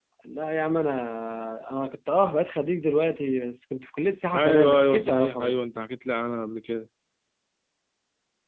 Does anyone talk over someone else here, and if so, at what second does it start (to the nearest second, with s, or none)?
4 s